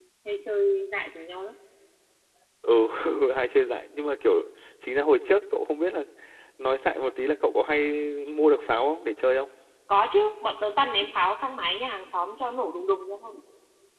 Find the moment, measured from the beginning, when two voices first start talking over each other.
none

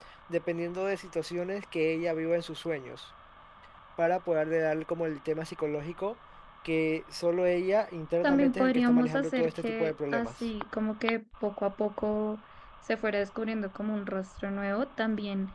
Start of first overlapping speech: 8.2 s

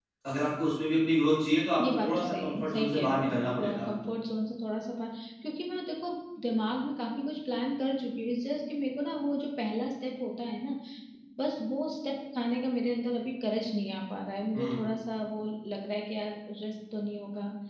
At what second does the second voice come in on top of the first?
1.8 s

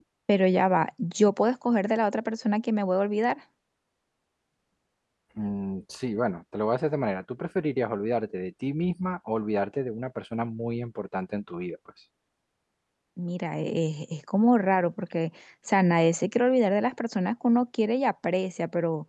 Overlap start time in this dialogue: none

